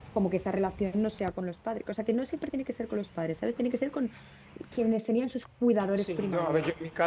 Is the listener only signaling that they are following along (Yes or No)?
No